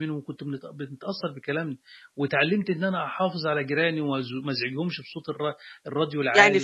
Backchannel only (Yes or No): No